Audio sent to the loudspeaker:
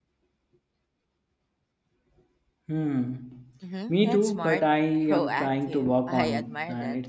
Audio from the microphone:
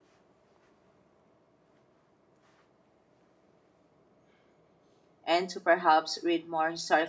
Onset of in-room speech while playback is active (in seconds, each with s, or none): 5.2 s